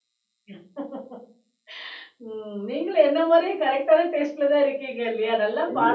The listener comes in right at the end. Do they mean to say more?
Yes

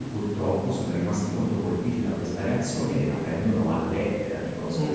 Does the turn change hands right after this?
No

